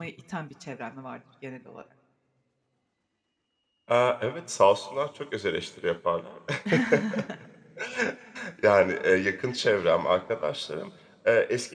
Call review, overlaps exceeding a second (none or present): none